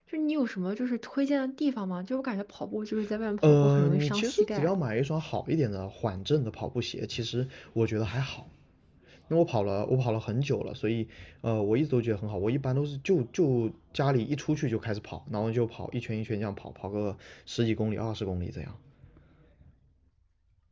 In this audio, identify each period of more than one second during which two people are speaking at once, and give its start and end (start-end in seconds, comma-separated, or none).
3.4-4.7